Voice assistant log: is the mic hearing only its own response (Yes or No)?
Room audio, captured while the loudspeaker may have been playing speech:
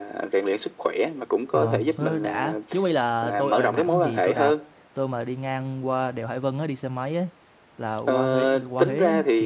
No